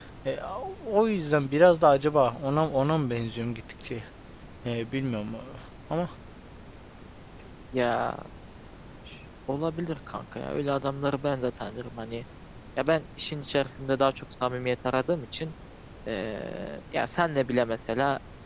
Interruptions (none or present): none